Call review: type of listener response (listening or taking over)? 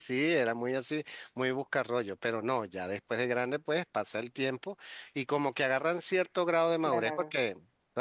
listening